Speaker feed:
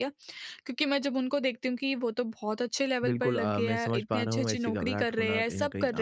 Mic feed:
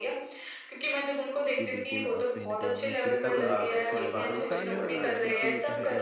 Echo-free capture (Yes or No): No